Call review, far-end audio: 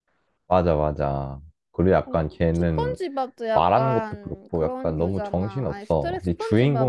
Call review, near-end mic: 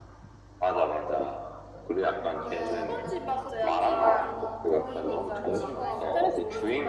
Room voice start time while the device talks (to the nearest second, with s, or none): 2 s